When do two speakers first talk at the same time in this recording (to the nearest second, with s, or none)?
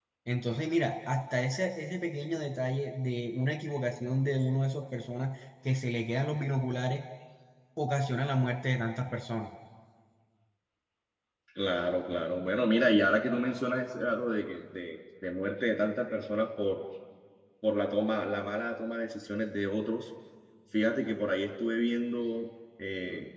none